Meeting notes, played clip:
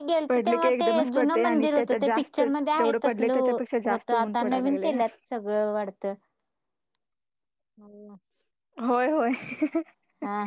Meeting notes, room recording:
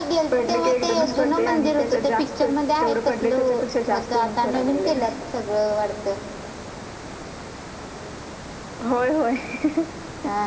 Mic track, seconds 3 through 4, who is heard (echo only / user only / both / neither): echo only